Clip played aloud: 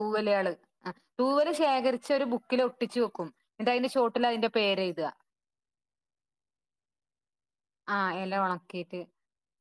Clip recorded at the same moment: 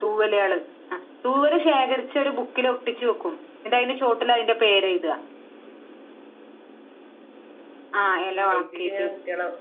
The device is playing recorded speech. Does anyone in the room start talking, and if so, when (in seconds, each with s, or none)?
8.3 s